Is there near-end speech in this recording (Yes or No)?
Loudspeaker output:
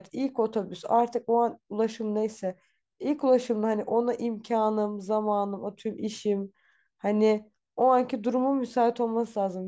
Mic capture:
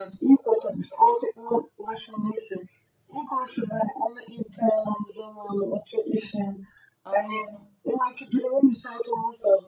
Yes